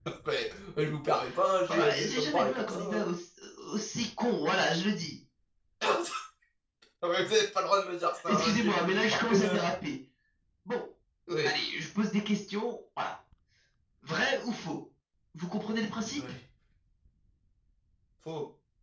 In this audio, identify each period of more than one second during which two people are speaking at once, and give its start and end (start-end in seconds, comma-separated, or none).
1.7-3.0, 8.2-9.6